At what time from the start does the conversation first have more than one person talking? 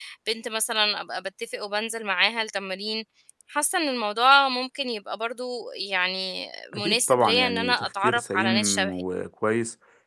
7 s

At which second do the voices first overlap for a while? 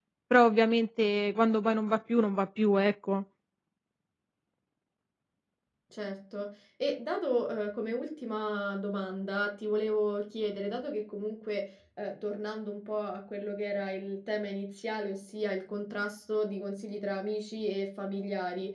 none

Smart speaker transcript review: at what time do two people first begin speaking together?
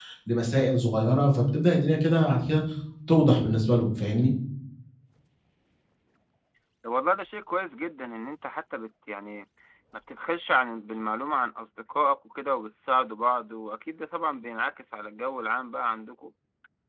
none

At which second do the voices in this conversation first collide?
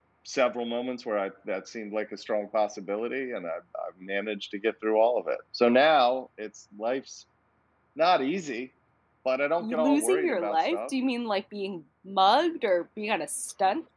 10 s

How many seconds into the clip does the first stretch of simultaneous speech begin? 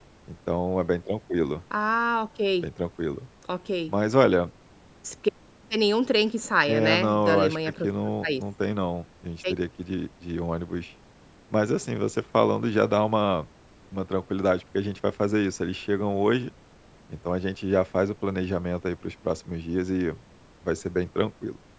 7 s

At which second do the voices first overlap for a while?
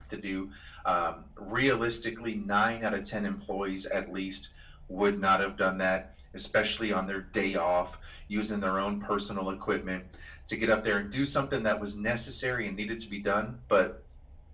none

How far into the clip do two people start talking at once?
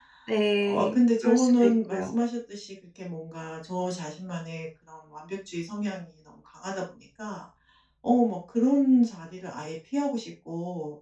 1 s

